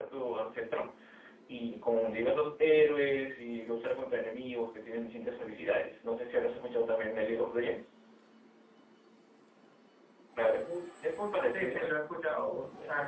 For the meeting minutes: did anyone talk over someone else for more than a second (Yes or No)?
No